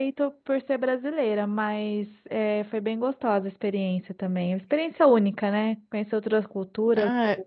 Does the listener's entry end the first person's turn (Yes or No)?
Yes